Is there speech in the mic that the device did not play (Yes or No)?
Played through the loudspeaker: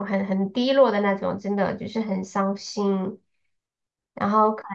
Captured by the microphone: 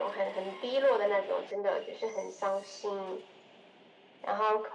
No